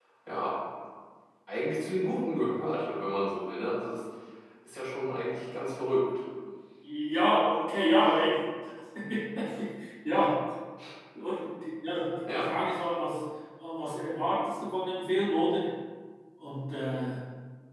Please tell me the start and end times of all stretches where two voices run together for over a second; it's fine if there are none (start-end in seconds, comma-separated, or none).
none